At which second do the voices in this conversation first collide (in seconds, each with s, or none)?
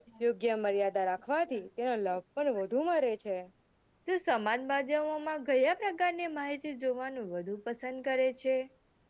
none